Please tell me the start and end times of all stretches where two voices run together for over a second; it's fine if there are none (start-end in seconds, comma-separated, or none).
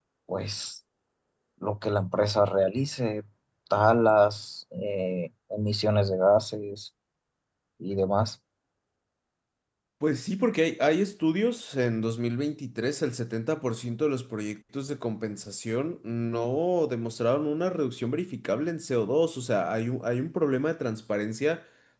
none